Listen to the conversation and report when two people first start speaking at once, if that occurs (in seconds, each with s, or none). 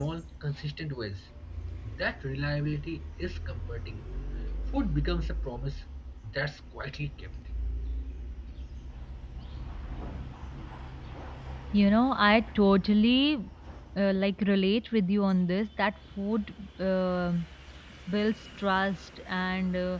none